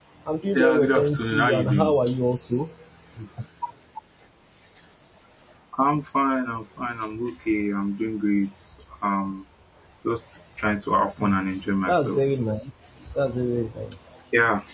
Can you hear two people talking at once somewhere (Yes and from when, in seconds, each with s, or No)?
Yes, from 0.6 s